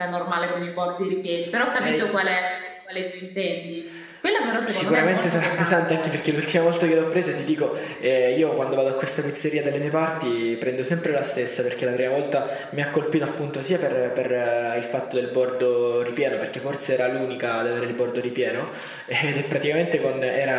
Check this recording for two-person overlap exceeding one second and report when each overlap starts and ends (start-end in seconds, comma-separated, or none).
4.7-6.1